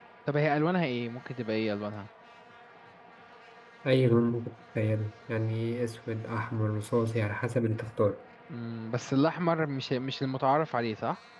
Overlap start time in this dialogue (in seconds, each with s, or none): none